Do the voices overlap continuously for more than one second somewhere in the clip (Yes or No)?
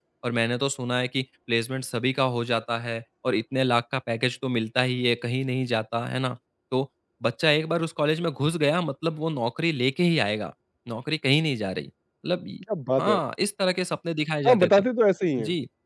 No